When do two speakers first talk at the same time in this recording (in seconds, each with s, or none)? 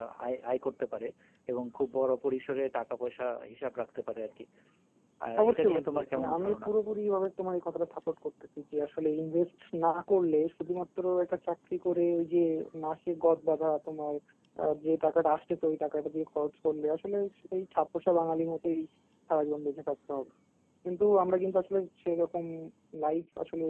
5.4 s